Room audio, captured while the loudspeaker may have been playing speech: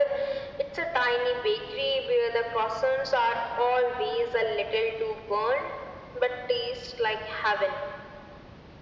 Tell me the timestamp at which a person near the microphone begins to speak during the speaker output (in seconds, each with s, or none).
none